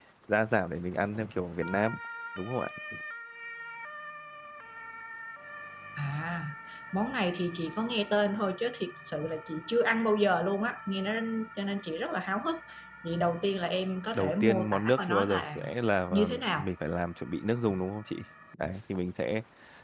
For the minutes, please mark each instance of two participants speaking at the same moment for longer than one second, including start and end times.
14.1-15.6

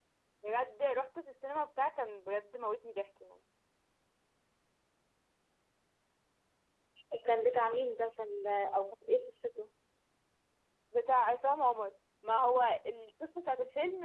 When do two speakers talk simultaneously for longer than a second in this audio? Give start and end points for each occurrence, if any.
none

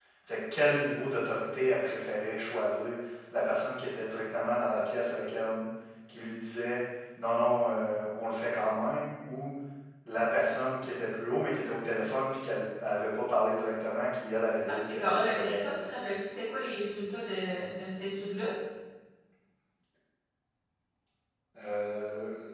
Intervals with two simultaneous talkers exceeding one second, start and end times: 14.7-16.1

